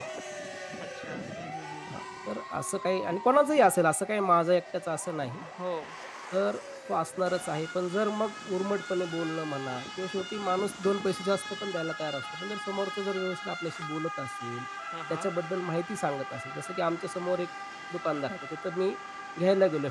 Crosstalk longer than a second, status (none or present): none